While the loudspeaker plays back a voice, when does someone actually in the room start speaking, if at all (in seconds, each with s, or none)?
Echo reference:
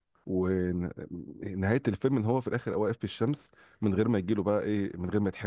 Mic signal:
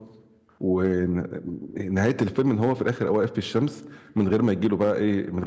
none